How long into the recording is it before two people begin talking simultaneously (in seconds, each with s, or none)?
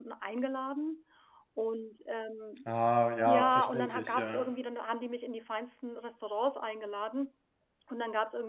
3.2 s